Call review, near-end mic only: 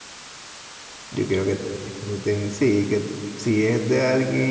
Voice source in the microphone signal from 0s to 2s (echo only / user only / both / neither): user only